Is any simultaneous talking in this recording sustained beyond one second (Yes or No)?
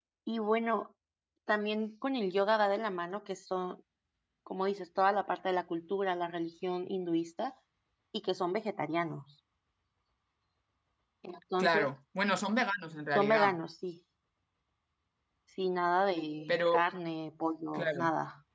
No